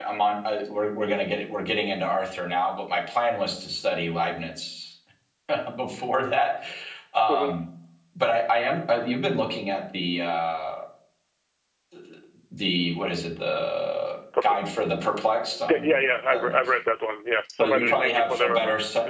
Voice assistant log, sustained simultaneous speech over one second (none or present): present